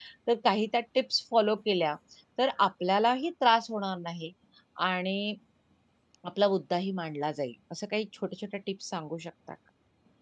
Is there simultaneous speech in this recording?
No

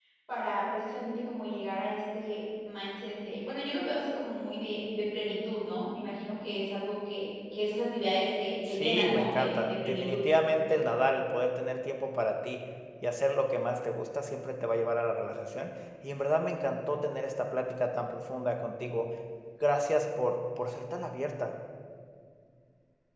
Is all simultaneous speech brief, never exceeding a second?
No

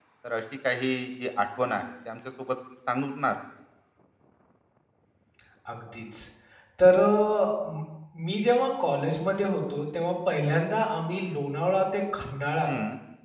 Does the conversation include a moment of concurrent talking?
No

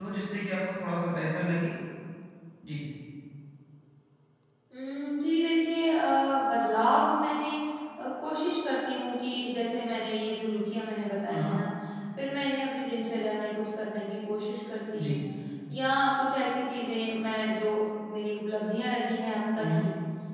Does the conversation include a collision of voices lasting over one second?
No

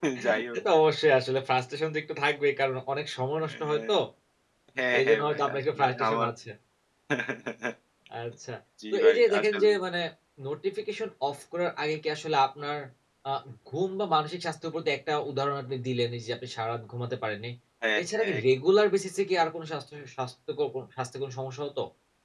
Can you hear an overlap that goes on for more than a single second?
Yes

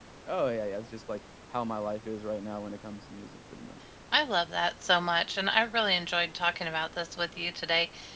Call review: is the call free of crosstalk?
Yes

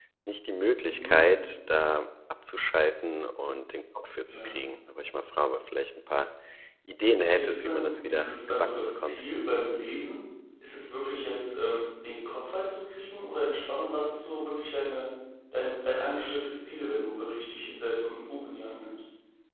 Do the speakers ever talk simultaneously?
Yes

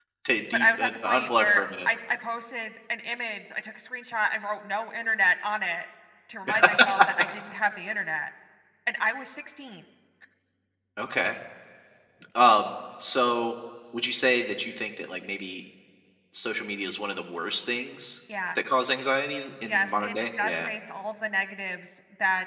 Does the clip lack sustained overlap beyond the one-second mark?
No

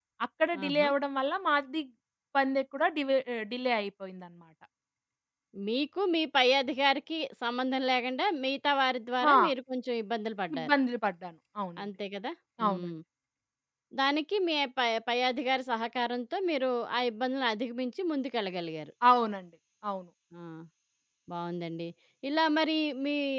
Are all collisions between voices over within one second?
Yes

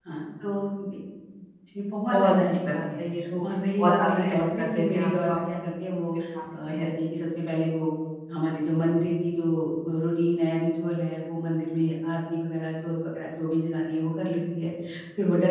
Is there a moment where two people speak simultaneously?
Yes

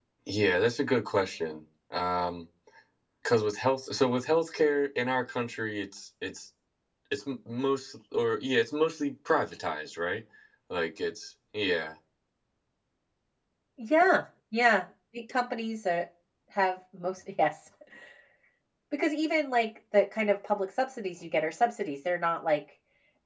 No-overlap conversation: Yes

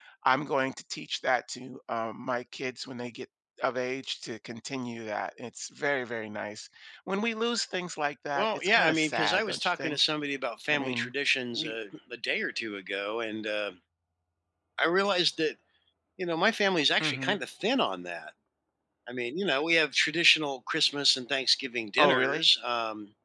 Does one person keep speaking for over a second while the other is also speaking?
Yes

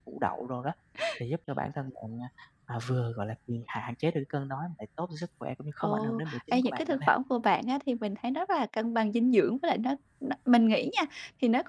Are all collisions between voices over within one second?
No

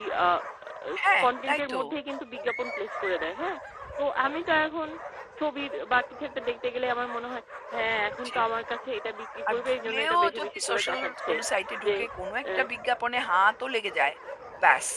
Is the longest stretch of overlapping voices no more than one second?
No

